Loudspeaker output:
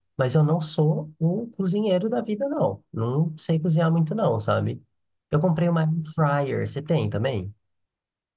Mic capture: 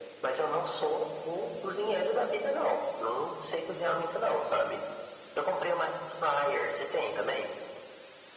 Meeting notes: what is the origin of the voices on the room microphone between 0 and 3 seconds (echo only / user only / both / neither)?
echo only